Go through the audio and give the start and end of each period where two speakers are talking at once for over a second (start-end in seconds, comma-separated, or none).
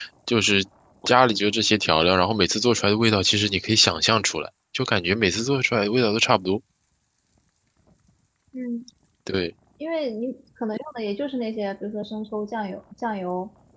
none